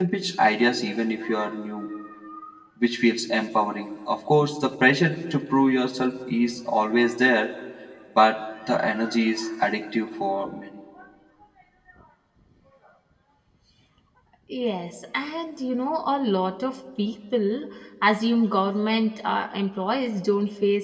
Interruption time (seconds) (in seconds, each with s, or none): none